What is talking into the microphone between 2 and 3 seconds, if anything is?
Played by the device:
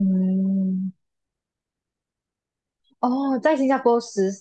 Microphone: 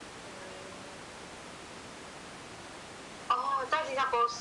neither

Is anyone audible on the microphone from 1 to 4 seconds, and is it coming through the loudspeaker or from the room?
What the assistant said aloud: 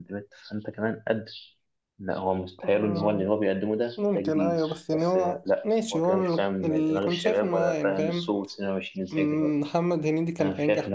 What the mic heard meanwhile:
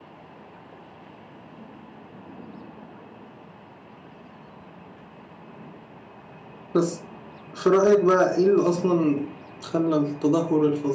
neither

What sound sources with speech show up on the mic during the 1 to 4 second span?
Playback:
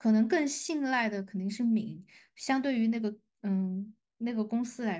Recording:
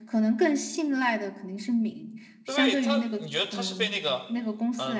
both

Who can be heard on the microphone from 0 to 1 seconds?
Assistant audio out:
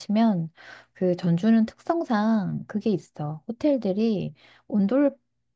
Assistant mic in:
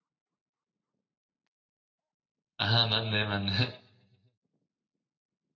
neither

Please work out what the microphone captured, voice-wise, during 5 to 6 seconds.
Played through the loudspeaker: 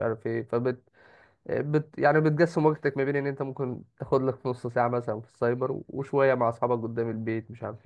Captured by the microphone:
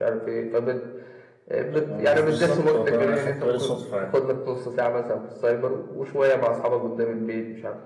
echo only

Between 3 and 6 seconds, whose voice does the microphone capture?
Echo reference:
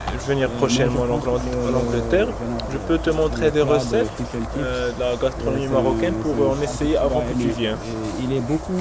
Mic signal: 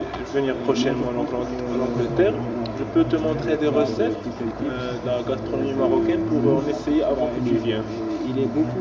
both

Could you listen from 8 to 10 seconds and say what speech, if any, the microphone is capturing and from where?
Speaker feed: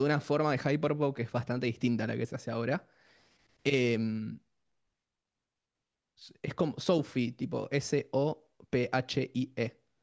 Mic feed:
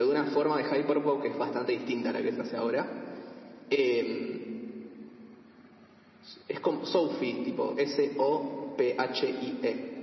echo only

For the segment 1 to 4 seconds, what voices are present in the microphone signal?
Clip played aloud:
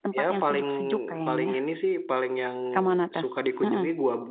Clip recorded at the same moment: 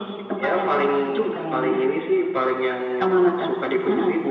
echo only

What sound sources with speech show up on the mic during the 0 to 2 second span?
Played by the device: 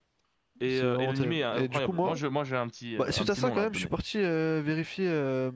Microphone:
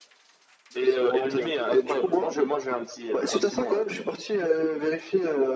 echo only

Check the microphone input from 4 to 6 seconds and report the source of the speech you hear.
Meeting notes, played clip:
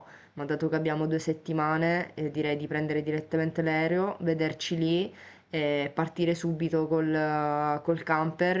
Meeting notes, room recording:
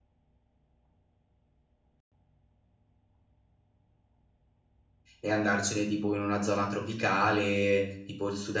user only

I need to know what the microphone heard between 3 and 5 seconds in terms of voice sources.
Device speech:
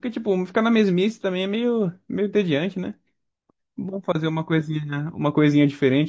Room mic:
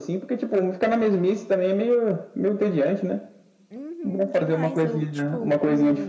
both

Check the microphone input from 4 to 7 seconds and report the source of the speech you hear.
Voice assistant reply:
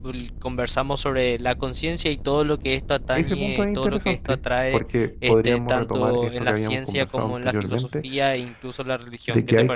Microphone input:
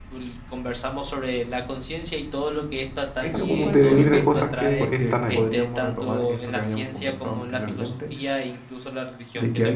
both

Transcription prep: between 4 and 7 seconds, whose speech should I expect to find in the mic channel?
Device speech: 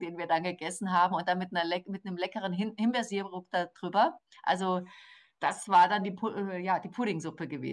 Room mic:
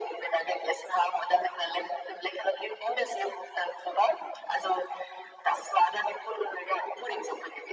echo only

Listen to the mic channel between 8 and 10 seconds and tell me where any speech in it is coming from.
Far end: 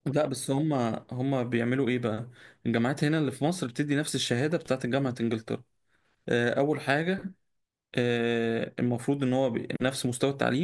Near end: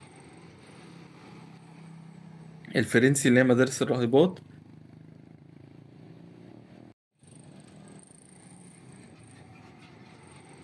neither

